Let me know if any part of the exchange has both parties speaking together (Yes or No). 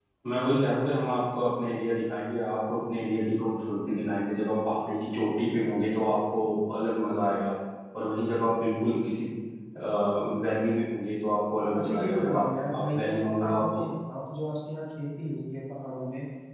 Yes